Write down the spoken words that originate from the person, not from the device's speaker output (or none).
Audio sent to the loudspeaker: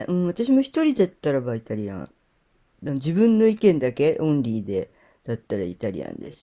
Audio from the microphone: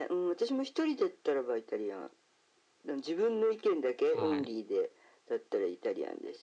な。はい。